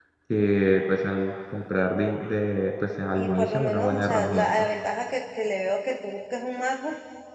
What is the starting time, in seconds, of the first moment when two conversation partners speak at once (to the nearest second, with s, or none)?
3 s